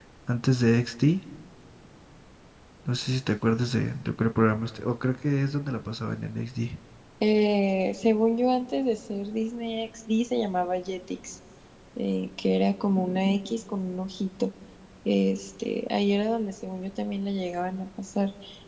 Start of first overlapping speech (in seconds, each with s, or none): none